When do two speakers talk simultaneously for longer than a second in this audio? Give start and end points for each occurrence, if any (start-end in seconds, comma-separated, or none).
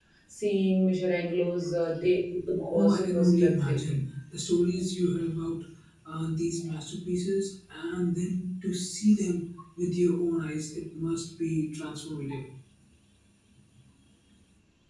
2.7-4.0